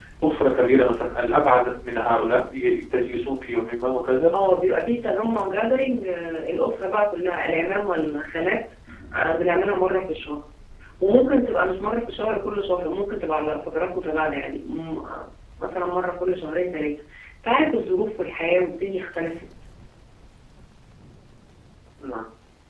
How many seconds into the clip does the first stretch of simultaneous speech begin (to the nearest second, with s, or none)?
none